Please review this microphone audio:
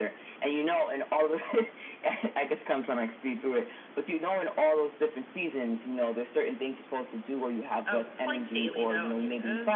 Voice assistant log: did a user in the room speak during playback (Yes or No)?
Yes